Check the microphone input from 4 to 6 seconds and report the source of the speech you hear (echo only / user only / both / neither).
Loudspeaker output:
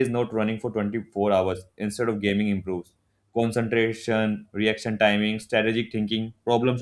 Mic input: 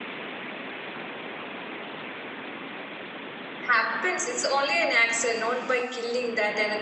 user only